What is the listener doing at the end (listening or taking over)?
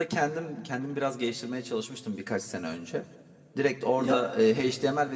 listening